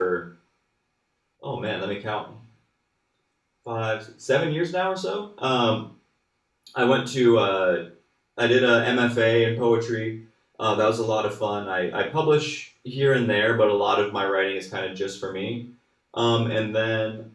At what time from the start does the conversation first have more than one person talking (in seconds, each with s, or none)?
none